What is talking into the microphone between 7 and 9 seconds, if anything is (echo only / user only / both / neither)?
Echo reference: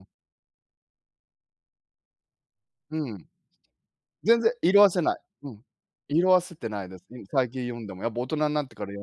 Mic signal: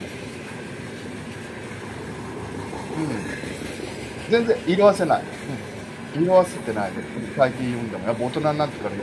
echo only